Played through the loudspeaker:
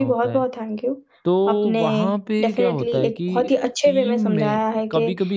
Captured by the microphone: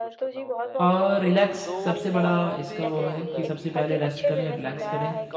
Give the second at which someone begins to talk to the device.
0.8 s

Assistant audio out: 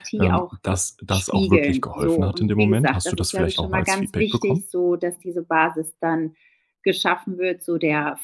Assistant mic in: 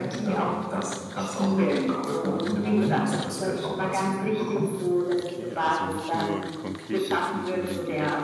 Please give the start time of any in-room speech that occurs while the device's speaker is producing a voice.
5.1 s

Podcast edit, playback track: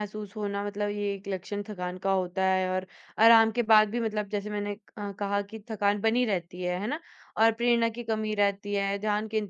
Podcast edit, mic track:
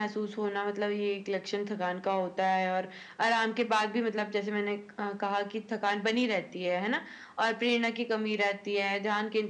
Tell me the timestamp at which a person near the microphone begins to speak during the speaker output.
none

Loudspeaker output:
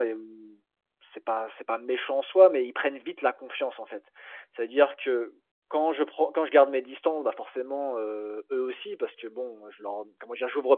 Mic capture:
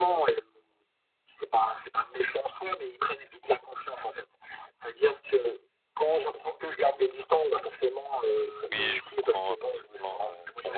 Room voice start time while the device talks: 8.7 s

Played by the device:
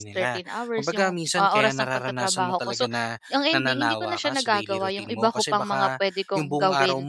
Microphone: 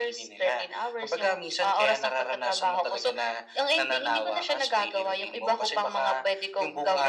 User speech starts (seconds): none

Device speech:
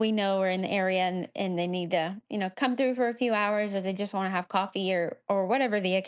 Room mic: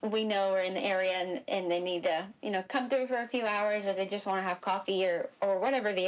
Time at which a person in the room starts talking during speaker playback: none

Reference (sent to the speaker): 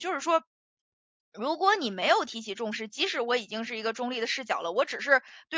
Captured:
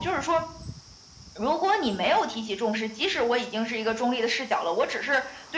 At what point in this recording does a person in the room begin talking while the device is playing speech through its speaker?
none

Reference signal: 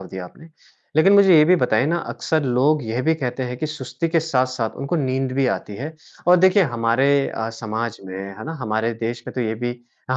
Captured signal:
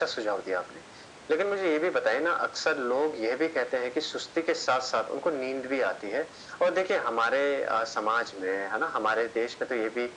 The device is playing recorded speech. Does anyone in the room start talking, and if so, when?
none

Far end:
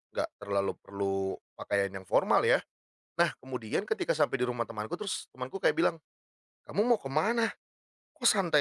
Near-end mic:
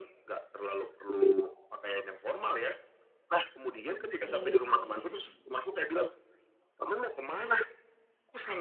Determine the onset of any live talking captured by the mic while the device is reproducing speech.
4.0 s

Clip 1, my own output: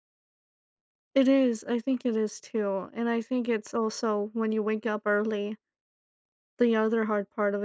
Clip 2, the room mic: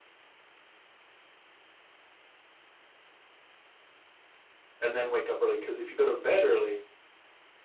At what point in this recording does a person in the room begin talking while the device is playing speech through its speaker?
4.8 s

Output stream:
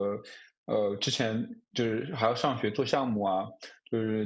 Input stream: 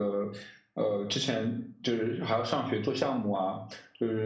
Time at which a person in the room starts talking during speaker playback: none

